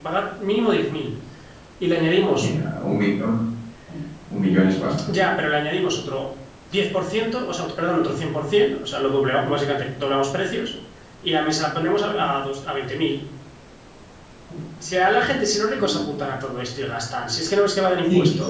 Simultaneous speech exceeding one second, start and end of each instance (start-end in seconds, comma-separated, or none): none